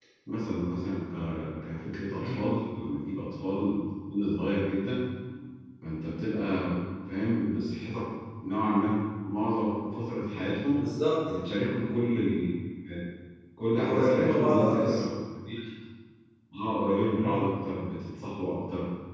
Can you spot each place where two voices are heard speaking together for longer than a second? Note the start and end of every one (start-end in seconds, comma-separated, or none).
13.8-15.0